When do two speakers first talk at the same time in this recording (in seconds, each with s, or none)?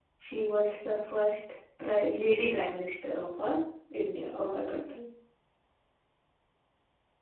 none